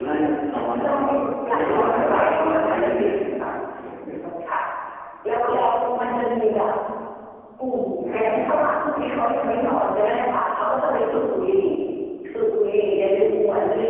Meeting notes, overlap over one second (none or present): present